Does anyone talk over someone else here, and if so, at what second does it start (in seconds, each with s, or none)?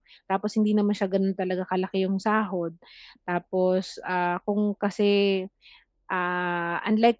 none